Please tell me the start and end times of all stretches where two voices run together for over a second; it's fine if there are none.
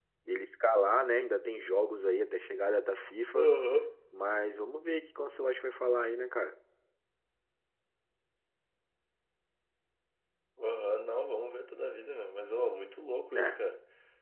none

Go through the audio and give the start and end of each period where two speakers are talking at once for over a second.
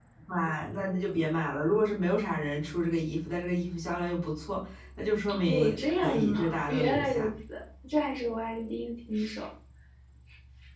5.5-7.3

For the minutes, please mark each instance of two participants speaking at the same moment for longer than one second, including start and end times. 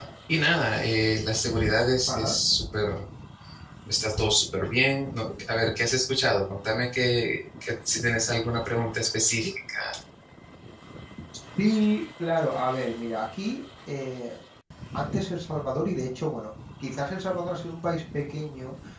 none

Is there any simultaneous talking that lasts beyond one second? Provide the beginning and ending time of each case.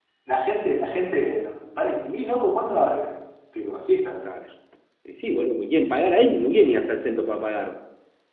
none

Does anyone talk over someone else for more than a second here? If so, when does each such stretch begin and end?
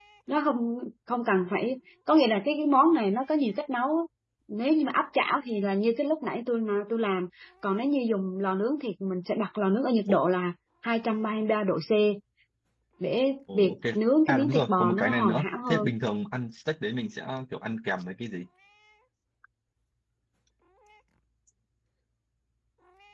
13.5-15.9

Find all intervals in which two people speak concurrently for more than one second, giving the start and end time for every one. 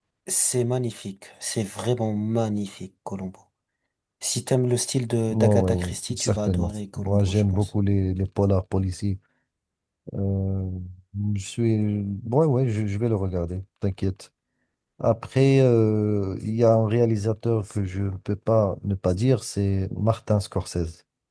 5.3-7.7

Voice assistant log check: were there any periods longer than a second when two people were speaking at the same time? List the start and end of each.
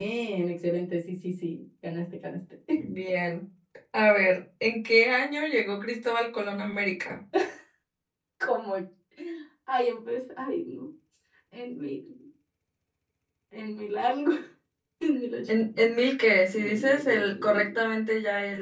16.5-17.8

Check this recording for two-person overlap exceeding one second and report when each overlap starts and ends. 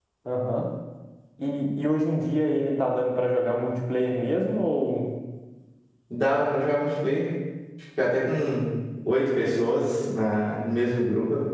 none

